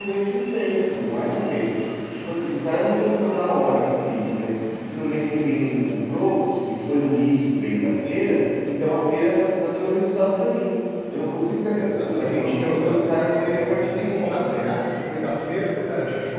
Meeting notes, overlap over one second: present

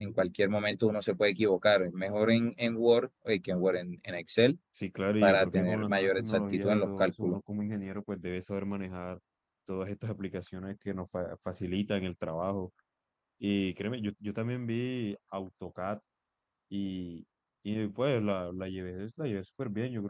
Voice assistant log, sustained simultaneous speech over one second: present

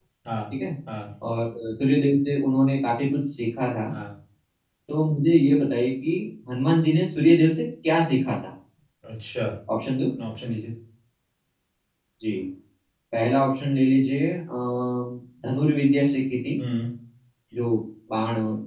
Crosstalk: none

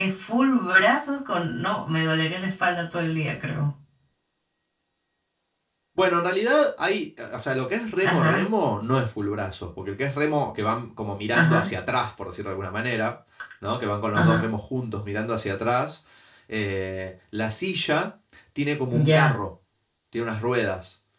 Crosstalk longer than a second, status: none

